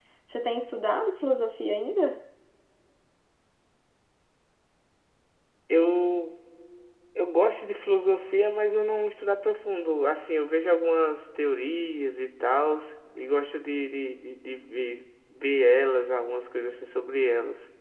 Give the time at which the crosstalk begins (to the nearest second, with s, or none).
none